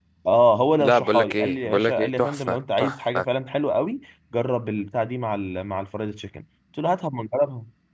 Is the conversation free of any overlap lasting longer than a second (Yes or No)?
No